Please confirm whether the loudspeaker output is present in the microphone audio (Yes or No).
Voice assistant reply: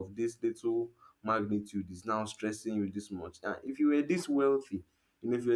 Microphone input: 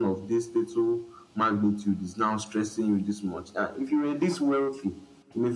Yes